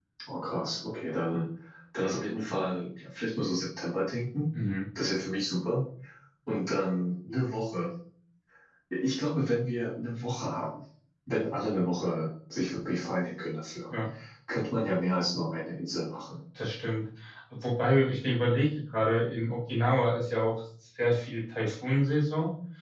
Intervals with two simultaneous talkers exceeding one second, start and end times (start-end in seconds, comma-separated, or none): none